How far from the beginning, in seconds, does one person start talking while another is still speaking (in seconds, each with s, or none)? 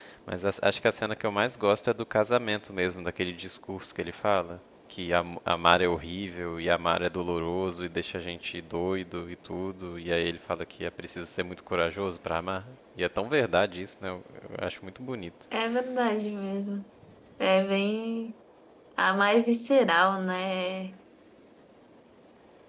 none